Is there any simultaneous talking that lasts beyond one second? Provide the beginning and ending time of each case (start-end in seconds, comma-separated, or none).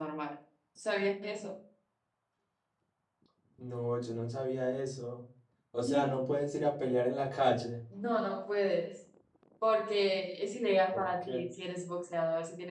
none